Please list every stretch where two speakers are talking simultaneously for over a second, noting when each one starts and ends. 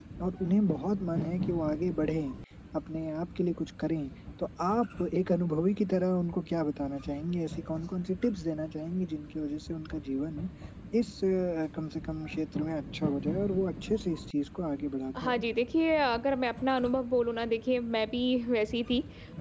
none

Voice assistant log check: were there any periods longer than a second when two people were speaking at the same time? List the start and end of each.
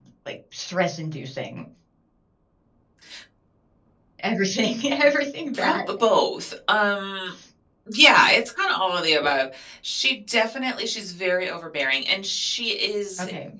none

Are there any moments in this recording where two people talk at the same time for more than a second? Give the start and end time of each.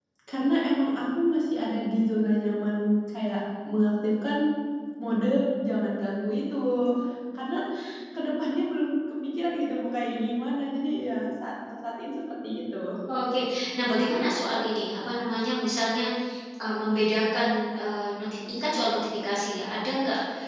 none

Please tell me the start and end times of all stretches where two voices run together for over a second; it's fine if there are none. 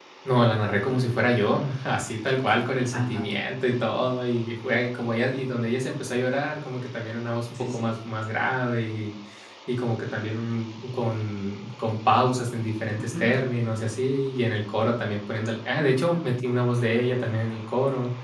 none

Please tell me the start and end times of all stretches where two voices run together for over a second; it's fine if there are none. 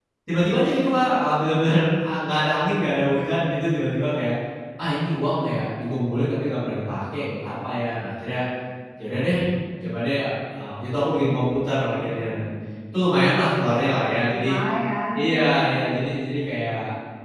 13.4-14.6

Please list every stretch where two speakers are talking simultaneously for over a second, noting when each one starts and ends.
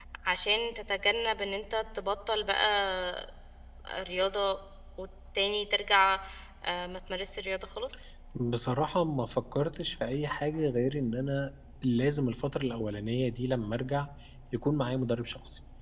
none

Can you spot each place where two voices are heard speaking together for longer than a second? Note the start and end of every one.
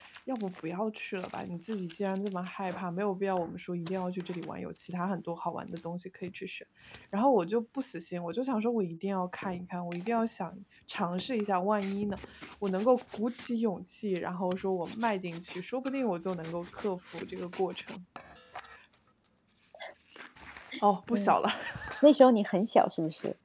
none

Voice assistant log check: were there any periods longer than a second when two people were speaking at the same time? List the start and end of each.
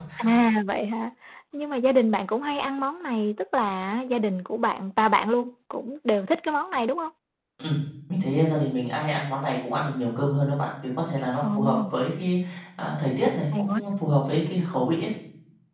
none

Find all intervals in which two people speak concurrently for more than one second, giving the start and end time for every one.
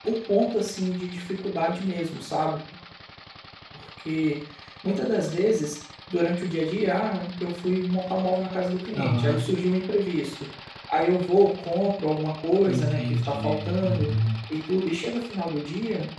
12.7-14.1

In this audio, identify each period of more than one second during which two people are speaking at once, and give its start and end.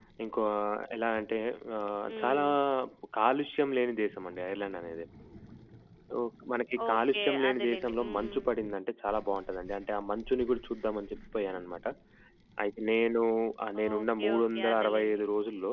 6.9-8.4, 13.8-15.2

